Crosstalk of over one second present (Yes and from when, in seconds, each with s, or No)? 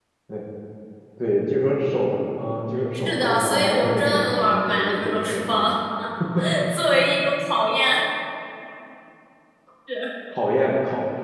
Yes, from 2.9 s